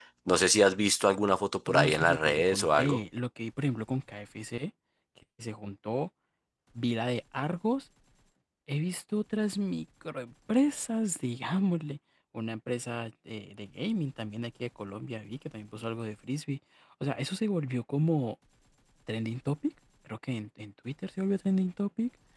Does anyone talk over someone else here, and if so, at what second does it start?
1.7 s

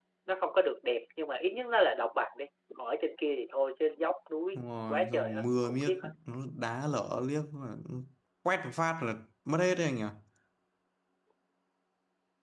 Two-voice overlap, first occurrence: 4.6 s

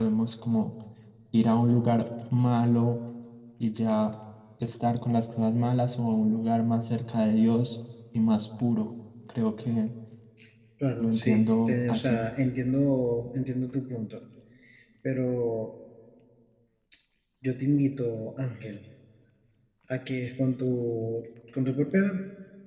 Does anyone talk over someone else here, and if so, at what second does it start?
11.0 s

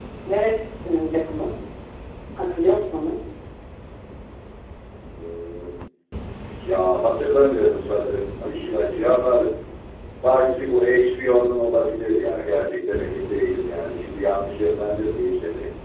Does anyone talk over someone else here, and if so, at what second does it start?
none

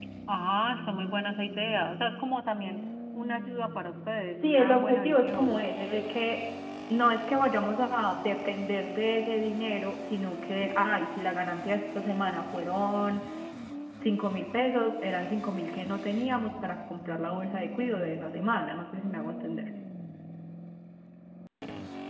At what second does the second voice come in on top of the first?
4.4 s

